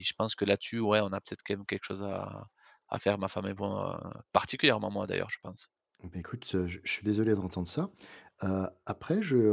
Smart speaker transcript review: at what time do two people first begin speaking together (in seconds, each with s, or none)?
none